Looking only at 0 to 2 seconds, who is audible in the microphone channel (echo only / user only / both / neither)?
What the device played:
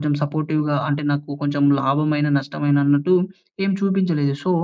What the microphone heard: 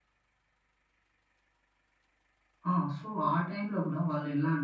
neither